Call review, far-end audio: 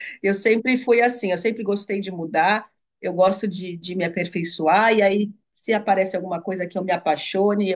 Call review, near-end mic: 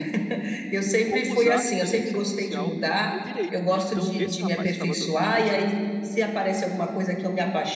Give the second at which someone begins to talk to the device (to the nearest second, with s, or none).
1 s